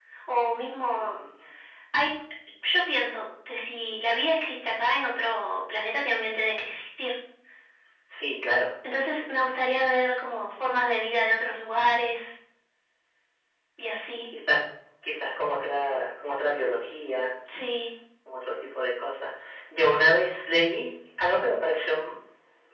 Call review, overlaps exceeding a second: none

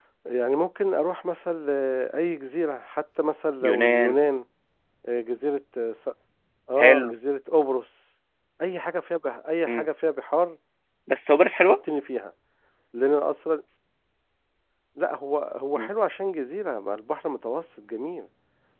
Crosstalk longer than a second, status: none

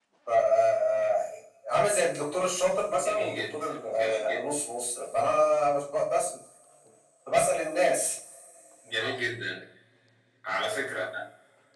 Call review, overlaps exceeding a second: present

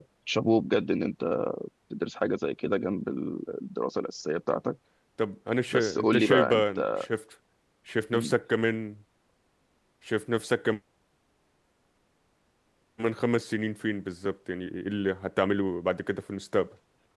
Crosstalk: present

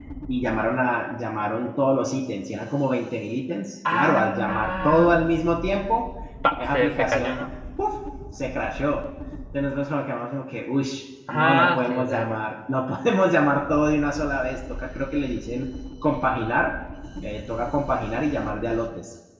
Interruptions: present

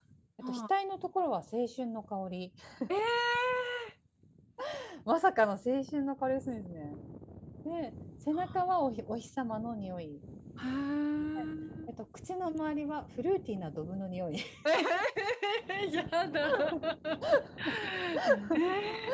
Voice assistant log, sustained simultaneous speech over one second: none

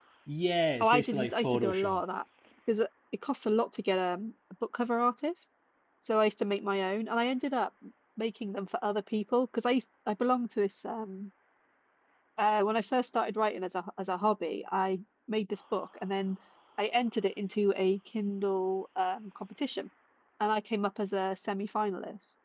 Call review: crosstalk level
present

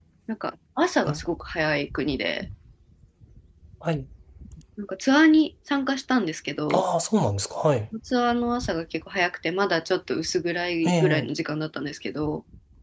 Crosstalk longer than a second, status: none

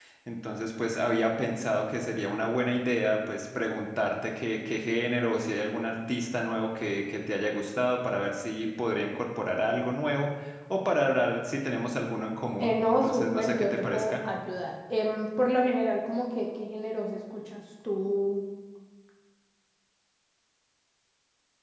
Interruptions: present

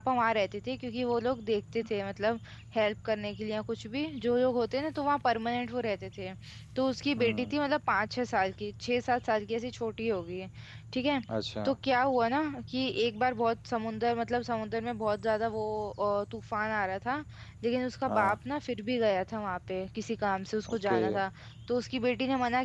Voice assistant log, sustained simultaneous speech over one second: none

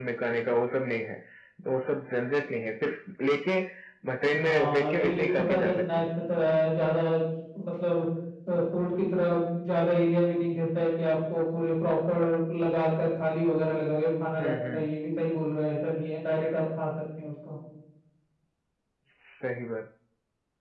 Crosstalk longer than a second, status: present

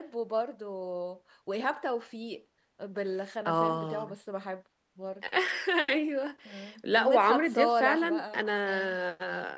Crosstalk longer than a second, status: present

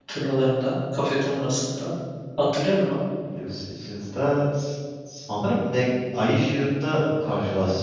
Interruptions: none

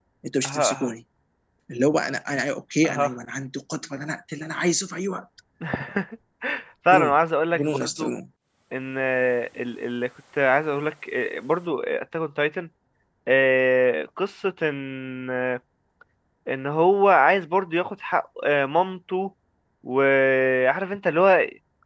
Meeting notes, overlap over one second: none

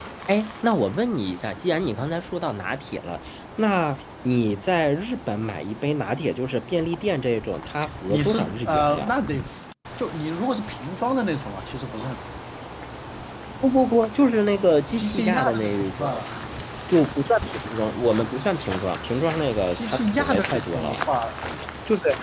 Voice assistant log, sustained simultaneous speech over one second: present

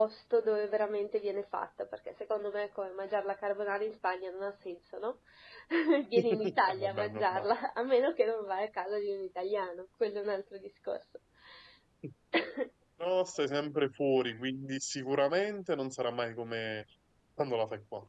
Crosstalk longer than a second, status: present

